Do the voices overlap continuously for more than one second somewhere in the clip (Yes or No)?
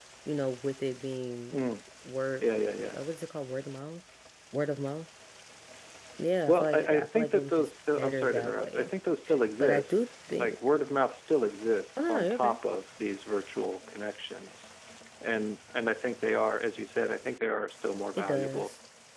Yes